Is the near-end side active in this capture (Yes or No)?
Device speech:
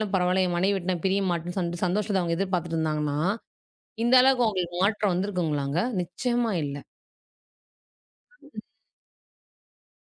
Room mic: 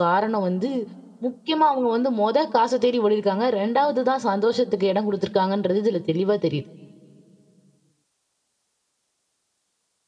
Yes